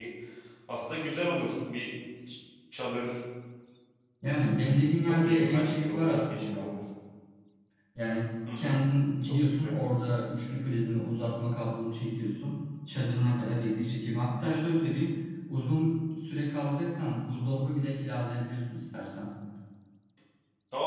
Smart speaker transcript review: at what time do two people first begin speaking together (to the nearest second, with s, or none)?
5 s